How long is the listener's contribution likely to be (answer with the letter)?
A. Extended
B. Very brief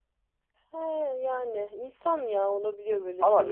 A